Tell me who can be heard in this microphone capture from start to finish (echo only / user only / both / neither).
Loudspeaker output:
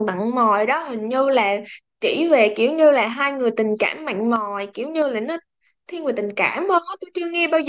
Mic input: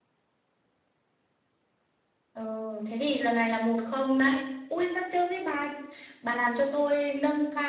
user only